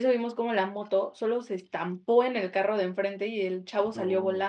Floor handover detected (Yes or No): No